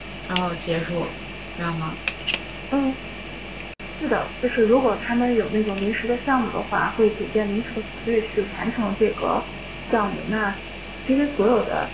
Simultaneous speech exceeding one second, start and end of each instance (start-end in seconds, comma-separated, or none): none